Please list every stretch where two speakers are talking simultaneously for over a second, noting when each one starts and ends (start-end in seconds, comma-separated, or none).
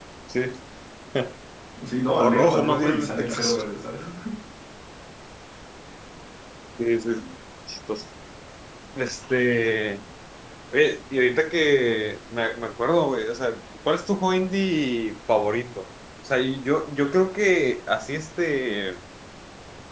2.2-3.6